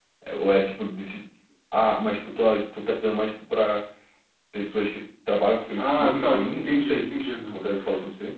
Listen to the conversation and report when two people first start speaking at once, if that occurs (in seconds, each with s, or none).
5.8 s